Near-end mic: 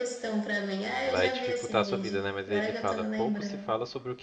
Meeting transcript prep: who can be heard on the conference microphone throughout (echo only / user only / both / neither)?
both